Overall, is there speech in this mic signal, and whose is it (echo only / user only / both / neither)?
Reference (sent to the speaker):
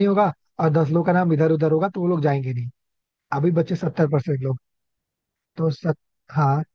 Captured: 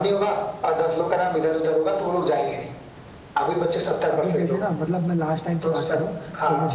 both